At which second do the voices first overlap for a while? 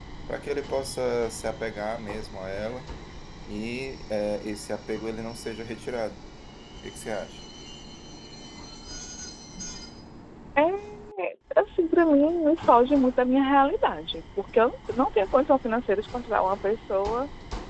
none

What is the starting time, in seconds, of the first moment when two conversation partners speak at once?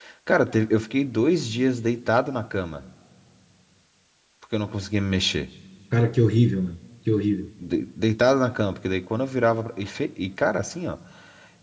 none

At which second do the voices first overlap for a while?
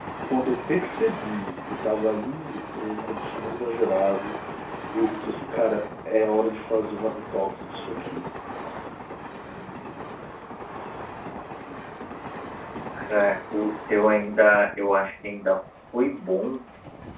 none

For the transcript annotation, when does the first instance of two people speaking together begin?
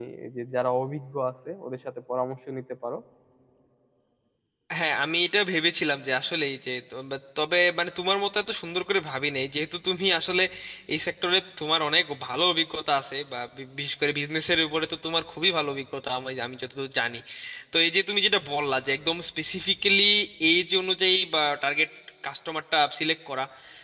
none

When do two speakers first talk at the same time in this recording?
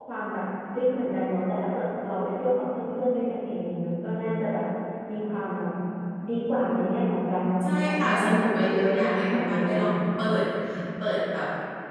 7.6 s

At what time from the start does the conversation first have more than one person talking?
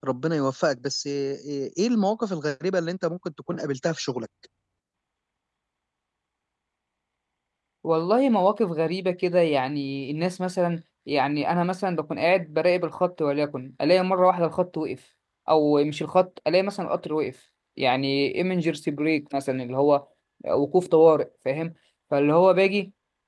none

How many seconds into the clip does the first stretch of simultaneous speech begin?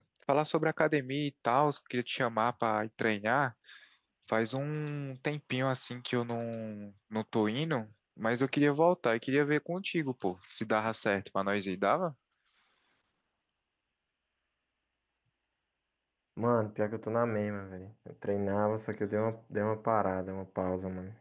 none

